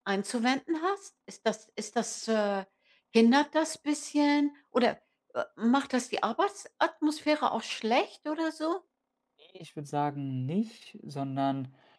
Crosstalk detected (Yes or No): No